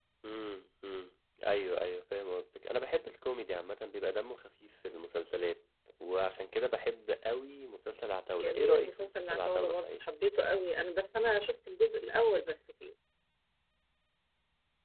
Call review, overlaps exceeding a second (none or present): present